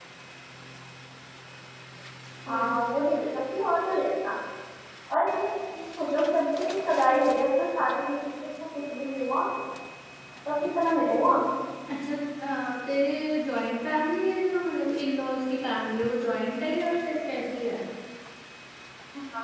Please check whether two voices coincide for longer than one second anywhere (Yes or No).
No